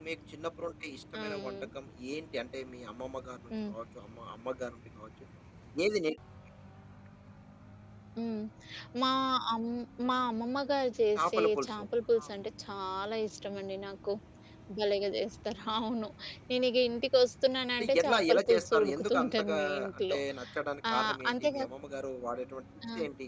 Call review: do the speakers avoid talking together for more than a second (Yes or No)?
No